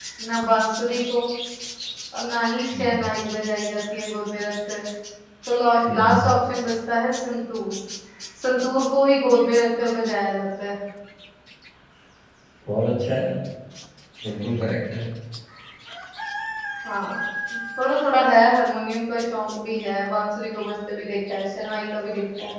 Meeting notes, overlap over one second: none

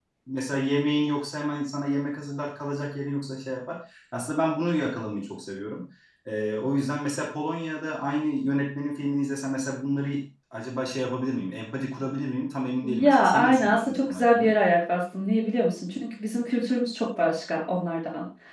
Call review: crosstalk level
present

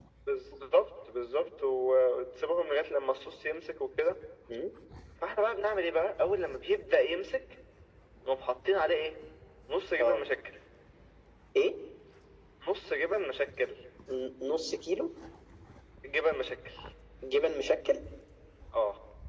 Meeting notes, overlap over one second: none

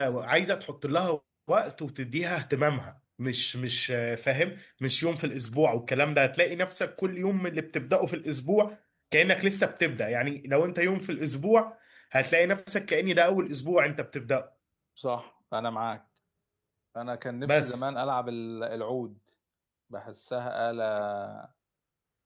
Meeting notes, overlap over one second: none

